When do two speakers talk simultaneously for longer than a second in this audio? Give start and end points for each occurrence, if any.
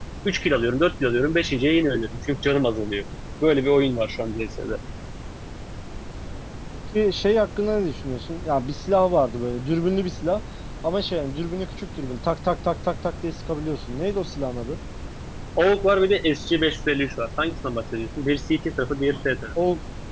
none

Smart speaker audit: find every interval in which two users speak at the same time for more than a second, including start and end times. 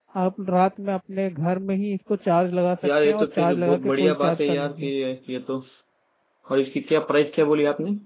3.0-4.9

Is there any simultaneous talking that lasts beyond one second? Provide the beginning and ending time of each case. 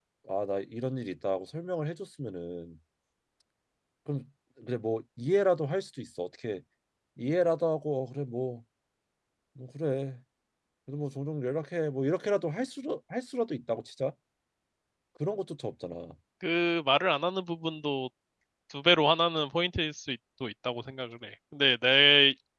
none

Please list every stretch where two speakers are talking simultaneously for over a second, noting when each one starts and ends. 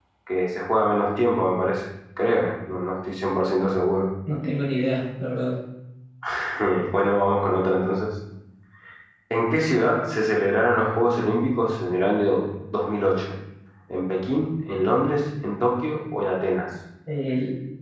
none

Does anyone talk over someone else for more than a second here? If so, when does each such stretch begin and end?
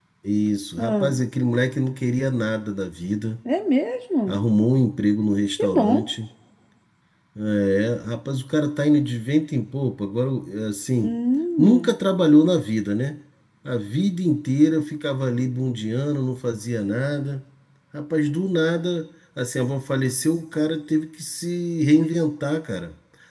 none

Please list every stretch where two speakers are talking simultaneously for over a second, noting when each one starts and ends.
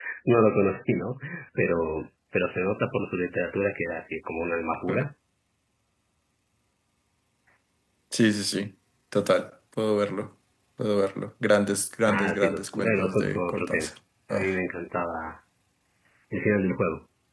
12.1-13.9

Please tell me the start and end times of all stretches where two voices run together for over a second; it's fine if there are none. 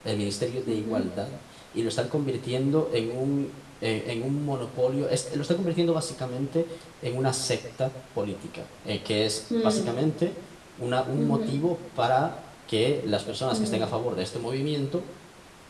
none

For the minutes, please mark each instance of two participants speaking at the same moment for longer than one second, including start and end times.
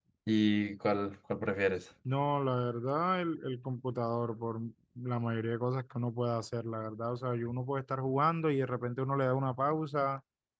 none

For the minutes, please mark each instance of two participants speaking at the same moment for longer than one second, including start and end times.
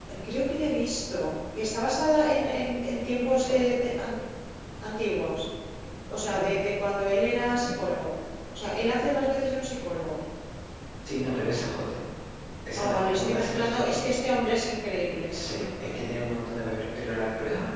12.7-14.0

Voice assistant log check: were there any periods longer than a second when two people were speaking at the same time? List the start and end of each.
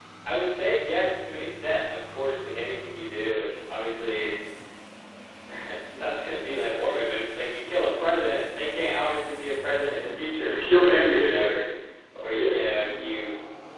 10.4-11.6

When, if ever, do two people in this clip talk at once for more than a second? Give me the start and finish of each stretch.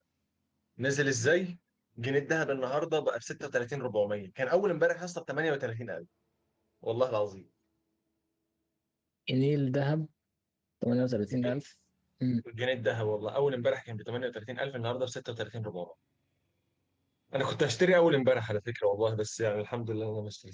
none

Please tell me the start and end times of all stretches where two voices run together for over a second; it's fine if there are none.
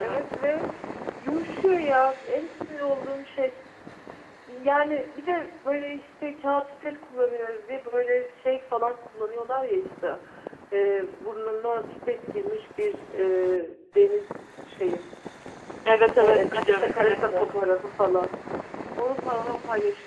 16.2-17.5

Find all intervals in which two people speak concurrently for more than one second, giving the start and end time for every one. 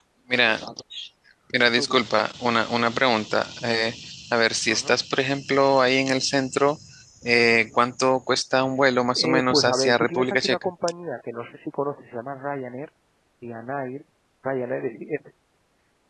9.2-10.7

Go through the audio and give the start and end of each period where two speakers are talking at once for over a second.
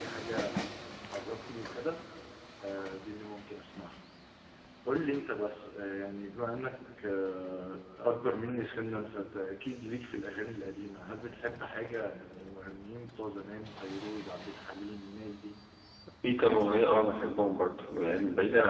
none

